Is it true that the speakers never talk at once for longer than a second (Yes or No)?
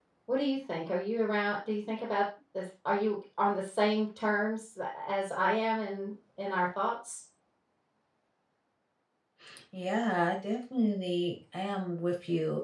Yes